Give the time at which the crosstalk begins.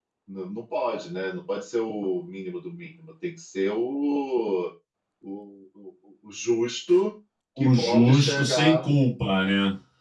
7.6 s

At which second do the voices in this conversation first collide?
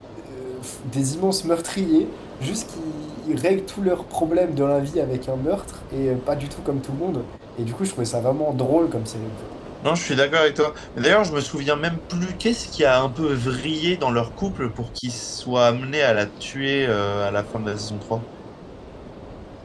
none

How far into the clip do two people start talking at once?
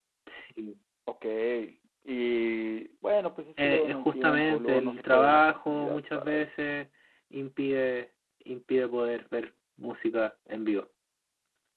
3.6 s

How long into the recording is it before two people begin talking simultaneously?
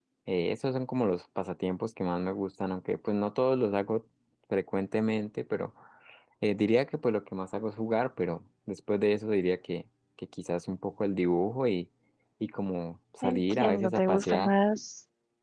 13.2 s

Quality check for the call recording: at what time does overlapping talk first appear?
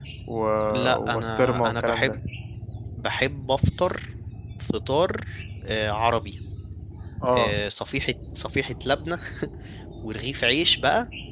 1.0 s

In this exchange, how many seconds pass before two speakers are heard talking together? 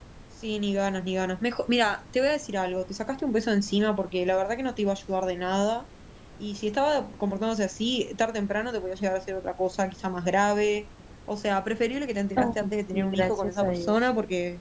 12.4 s

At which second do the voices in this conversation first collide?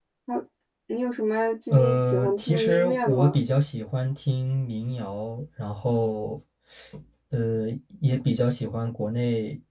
1.7 s

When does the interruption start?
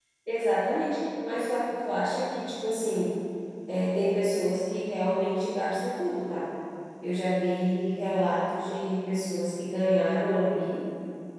none

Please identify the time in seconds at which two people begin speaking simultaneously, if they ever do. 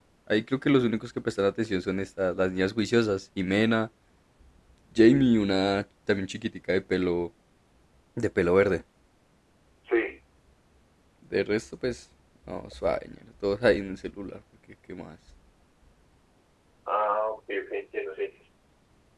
none

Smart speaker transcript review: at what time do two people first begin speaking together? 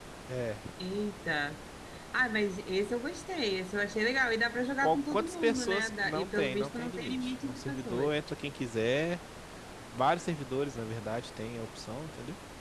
4.8 s

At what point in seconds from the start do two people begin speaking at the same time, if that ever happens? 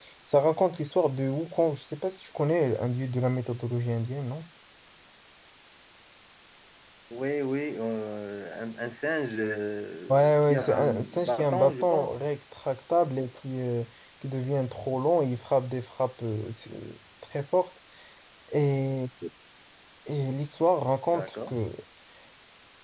10.1 s

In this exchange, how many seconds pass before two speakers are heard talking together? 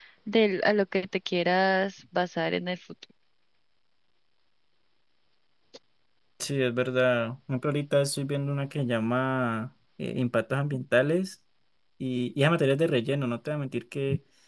none

